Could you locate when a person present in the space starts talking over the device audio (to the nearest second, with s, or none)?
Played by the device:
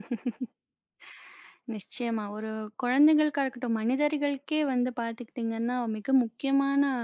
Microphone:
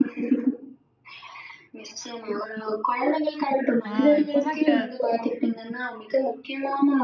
4 s